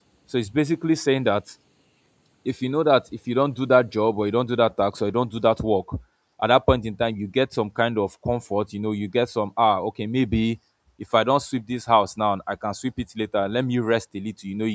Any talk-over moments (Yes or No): No